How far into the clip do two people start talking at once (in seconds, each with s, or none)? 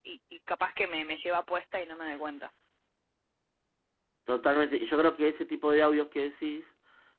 none